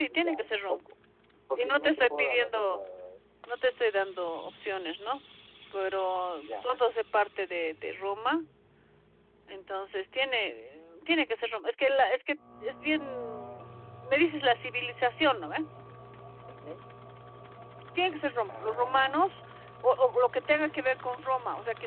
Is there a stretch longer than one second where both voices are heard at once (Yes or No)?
Yes